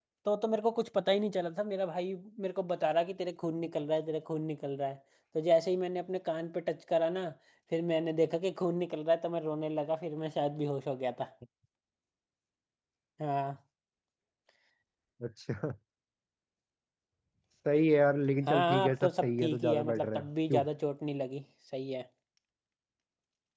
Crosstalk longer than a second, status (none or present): present